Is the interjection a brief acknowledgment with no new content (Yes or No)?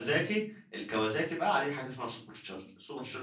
Yes